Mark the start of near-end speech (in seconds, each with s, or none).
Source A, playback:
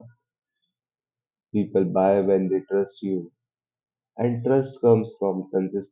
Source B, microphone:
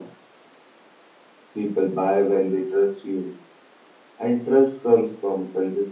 none